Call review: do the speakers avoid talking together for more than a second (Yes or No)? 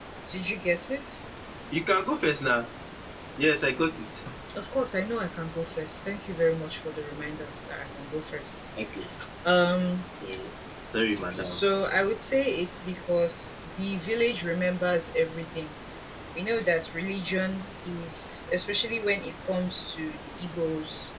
Yes